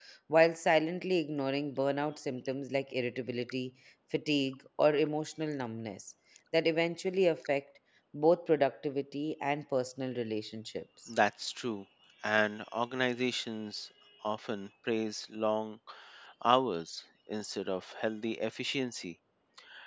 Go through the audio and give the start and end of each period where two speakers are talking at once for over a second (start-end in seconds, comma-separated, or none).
none